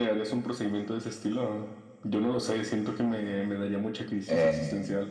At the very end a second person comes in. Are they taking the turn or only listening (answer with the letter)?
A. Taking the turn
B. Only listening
A